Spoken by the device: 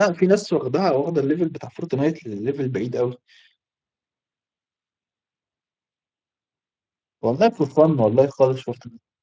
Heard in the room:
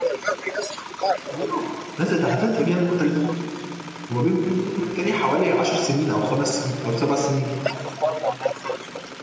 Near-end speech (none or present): present